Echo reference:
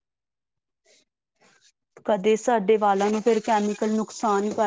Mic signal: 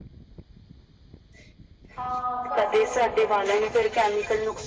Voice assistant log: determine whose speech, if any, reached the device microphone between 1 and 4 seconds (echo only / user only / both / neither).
both